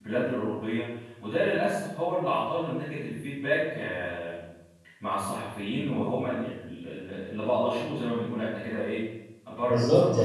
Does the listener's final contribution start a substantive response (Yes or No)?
Yes